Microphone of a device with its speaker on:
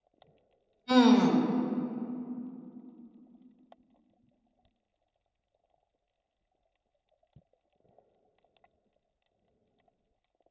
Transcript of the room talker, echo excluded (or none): 嗯。